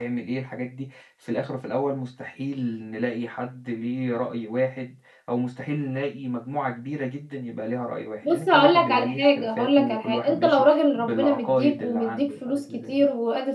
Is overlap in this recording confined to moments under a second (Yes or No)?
No